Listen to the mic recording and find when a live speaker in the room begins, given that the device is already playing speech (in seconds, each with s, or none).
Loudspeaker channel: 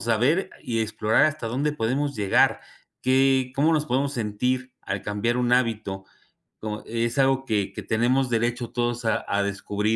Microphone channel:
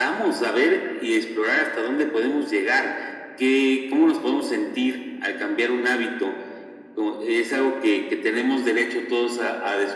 none